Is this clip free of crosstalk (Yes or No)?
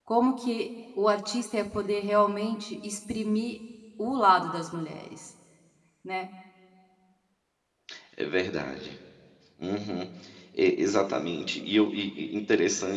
Yes